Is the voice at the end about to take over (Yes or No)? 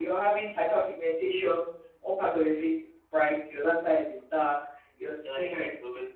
Yes